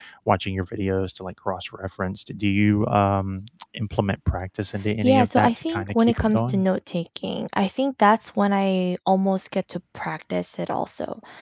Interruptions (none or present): present